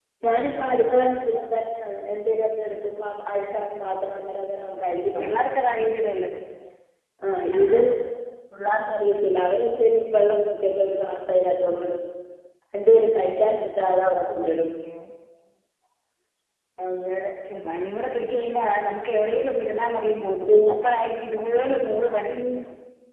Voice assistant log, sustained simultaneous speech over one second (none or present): none